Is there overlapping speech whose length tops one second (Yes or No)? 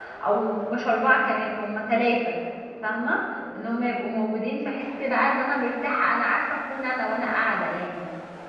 No